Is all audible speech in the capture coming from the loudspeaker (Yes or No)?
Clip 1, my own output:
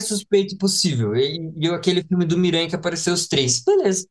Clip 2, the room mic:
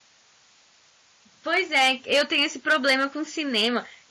No